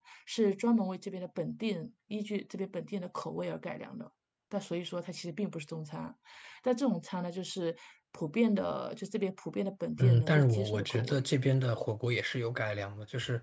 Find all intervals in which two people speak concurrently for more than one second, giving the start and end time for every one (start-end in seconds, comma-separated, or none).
10.0-11.2